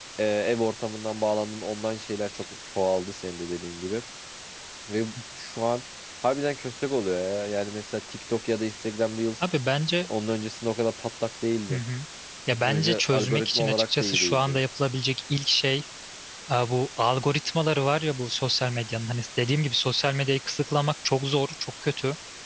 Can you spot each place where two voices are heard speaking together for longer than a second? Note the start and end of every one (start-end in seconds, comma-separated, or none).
12.6-14.6